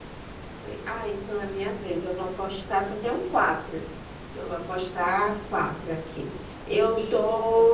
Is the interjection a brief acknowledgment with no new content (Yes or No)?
Yes